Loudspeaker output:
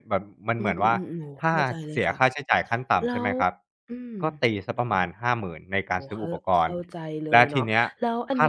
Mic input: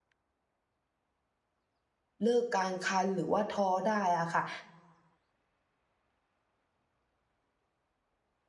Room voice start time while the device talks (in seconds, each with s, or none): 2.2 s